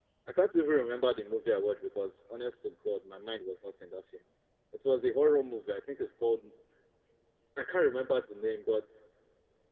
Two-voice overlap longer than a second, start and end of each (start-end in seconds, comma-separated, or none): none